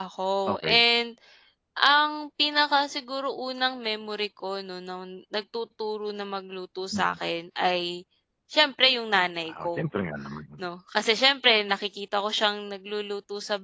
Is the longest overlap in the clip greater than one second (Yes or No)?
No